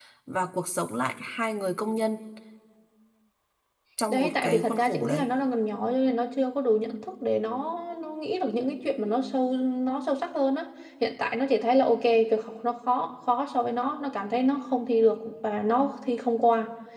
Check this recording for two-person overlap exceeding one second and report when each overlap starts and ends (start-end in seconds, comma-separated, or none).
4.1-5.3